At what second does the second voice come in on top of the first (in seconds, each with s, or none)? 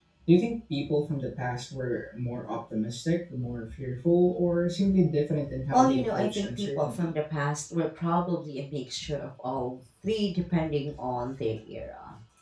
5.7 s